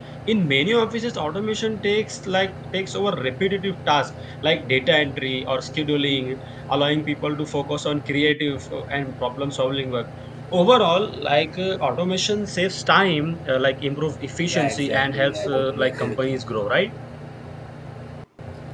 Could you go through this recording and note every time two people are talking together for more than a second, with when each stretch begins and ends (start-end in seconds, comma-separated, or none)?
14.5-16.4